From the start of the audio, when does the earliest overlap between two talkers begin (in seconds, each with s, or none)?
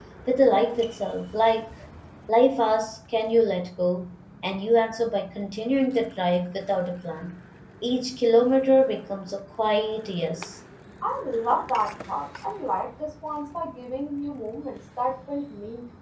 none